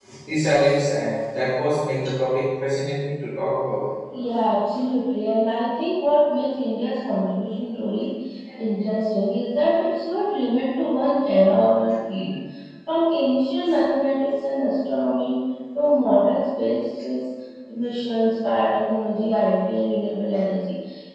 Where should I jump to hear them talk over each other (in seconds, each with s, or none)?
none